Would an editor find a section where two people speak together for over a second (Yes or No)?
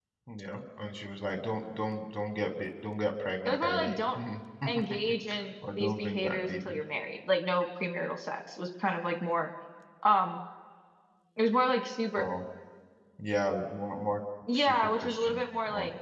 Yes